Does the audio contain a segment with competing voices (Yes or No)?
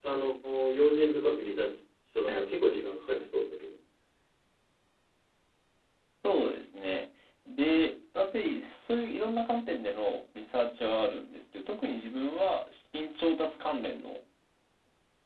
No